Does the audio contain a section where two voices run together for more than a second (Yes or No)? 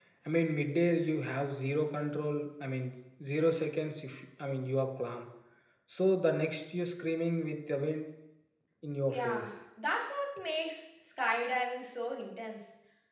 No